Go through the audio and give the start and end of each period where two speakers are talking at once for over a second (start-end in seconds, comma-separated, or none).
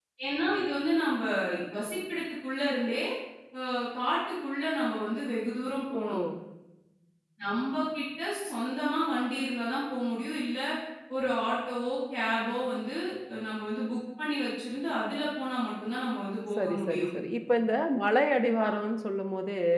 none